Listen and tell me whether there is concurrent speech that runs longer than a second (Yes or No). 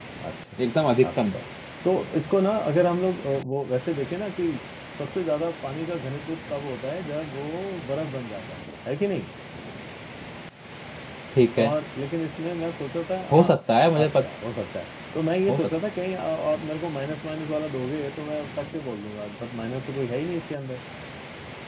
No